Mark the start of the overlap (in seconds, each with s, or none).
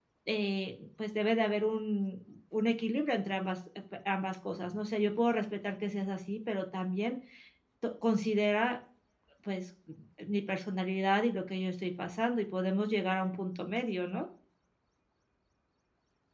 none